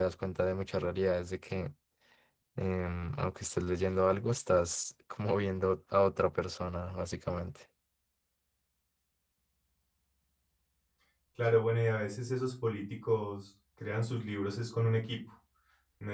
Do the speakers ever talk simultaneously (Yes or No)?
No